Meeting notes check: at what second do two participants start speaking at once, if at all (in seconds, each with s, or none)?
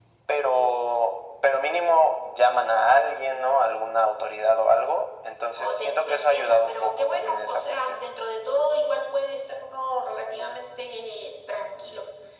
5.6 s